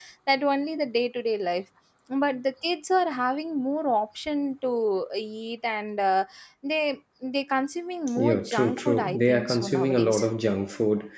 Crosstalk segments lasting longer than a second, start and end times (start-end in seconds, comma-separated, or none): 8.2-10.3